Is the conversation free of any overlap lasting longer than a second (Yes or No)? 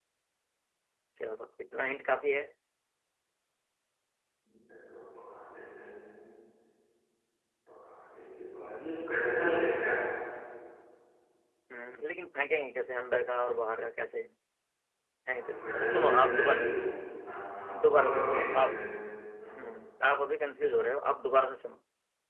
No